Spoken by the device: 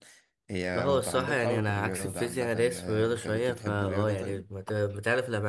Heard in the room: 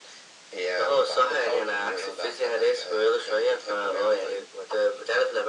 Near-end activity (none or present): none